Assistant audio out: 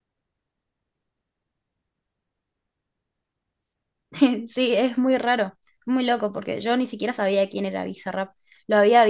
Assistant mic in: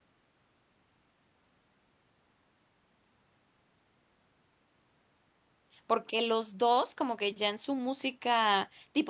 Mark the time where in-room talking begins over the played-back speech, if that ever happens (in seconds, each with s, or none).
5.8 s